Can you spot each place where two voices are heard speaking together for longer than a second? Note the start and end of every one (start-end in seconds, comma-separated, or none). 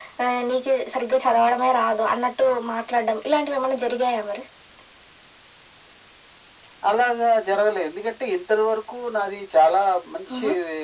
none